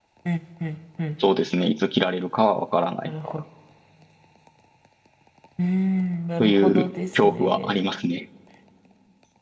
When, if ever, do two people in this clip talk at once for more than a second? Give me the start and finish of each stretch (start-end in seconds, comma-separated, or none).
6.4-7.9